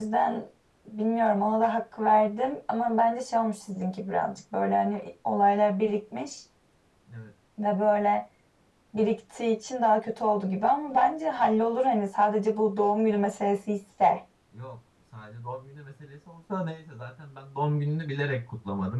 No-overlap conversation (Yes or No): Yes